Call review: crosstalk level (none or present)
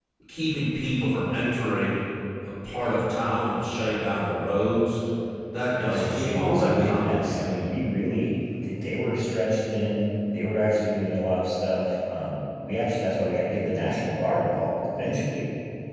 present